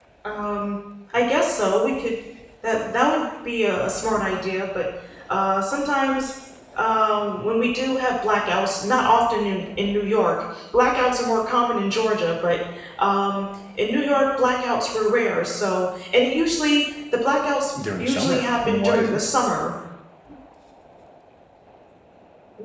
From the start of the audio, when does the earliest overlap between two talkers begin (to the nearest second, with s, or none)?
18 s